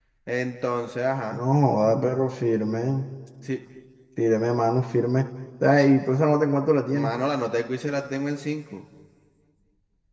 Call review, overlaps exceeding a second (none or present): none